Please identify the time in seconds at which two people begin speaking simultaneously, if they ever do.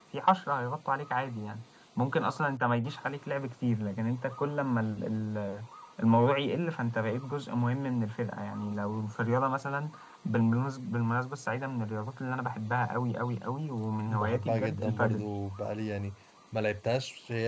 14.1 s

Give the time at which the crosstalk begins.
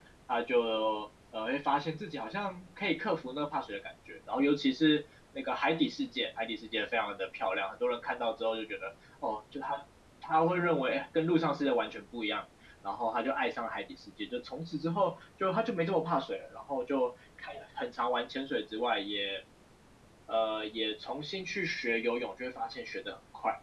none

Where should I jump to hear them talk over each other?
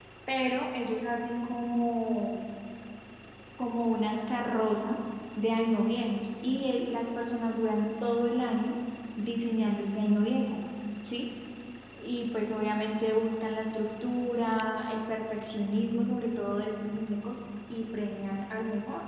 none

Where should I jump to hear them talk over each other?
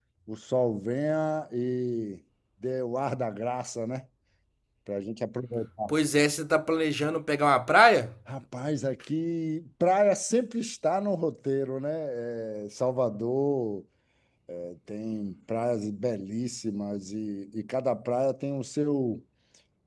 none

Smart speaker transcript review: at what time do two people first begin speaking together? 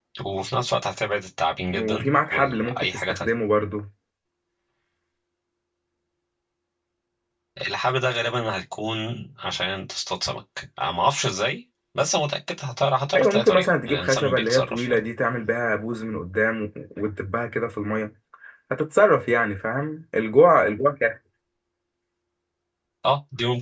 1.7 s

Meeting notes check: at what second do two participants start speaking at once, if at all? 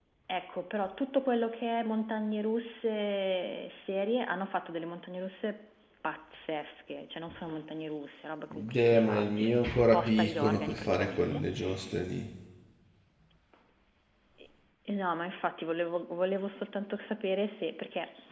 8.5 s

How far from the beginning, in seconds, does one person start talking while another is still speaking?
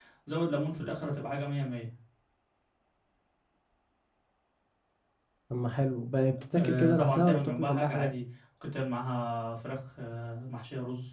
6.5 s

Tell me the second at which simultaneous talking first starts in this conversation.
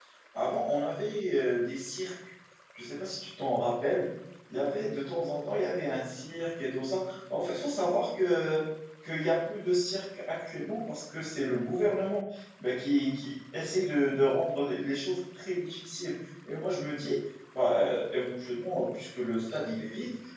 none

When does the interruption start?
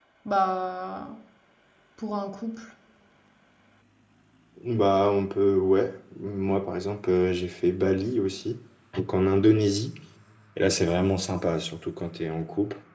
none

